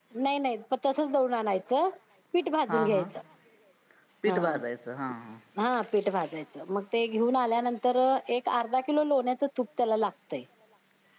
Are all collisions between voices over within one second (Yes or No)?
Yes